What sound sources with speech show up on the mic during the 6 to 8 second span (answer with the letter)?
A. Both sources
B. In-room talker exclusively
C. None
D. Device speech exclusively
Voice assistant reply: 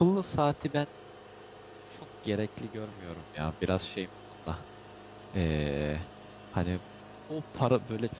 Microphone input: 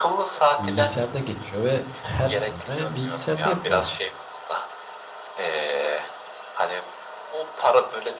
D